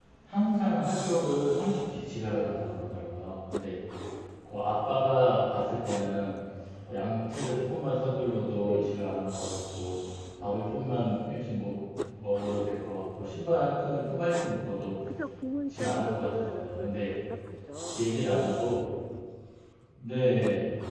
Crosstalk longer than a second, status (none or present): present